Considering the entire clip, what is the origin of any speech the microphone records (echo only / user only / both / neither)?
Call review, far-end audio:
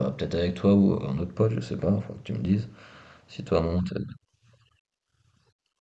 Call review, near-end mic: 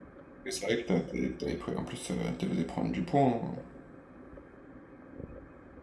user only